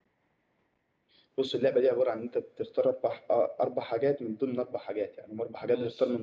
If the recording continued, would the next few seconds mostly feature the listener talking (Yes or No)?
No